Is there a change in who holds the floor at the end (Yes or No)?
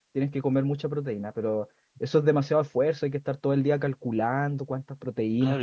Yes